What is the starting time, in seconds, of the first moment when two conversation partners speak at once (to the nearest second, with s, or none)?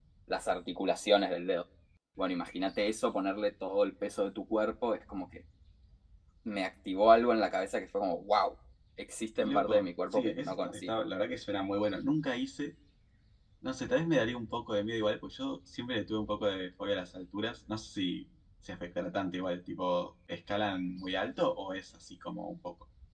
9 s